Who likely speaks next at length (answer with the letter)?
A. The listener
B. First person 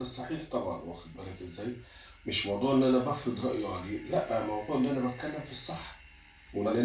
A